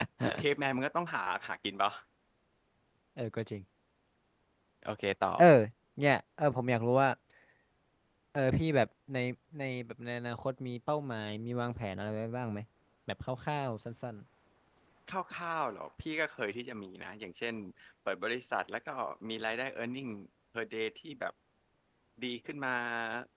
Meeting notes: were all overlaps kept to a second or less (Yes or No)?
Yes